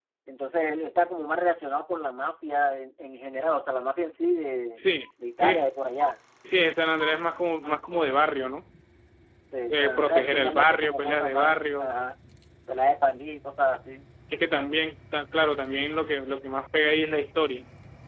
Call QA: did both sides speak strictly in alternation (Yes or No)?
No